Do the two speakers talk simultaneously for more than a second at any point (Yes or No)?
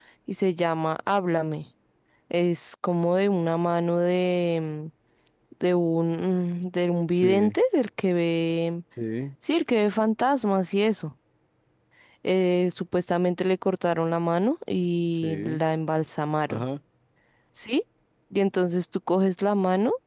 No